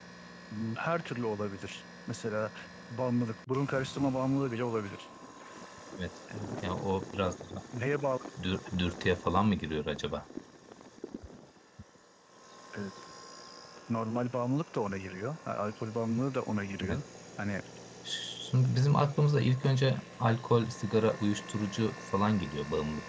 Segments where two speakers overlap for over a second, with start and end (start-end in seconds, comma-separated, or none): none